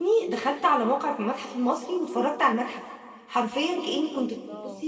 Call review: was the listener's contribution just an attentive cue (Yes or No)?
Yes